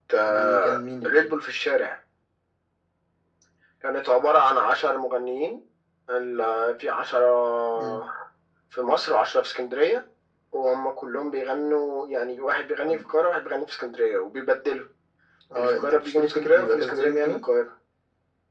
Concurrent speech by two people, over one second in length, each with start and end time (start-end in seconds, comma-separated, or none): 15.6-17.4